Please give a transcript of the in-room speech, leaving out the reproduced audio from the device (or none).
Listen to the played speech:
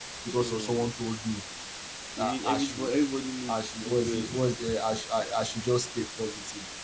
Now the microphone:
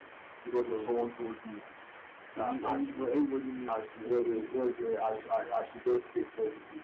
none